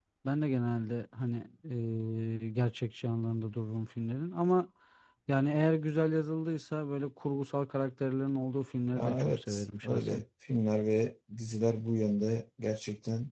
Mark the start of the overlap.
8.9 s

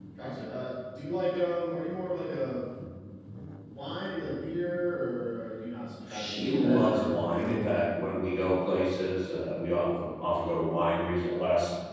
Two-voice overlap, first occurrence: 6.1 s

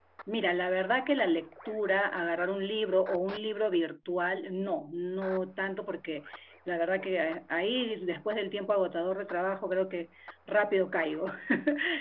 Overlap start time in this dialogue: none

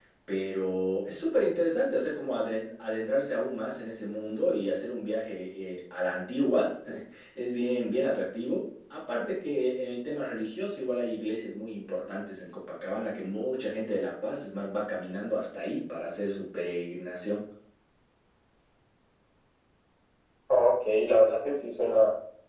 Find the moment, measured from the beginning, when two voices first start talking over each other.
none

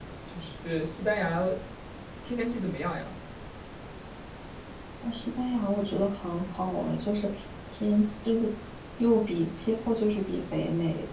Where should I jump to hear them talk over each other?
none

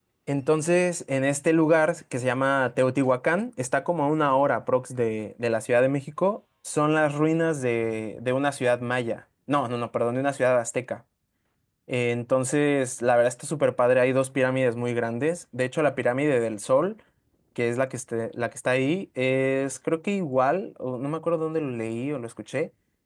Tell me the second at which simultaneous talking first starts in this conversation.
none

